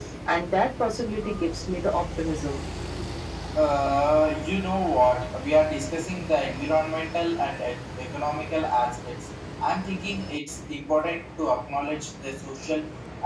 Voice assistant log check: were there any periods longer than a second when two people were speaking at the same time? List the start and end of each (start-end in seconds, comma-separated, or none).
none